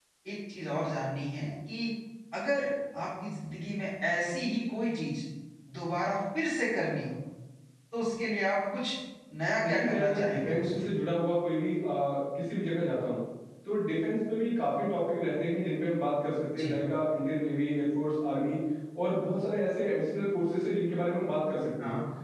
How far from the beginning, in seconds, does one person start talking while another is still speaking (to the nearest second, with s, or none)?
10 s